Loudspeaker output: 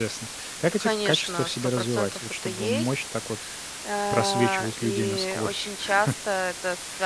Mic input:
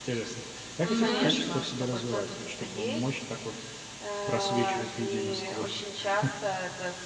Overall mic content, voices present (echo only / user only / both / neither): both